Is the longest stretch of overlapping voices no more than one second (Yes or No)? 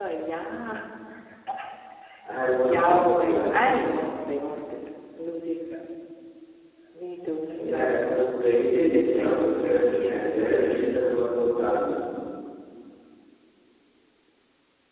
No